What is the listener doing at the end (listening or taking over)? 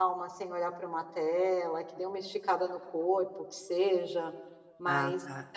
listening